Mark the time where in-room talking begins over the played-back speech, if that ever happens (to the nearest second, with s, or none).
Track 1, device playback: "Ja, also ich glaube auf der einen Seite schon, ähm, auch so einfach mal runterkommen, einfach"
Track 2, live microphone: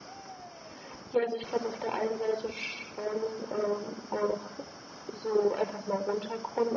none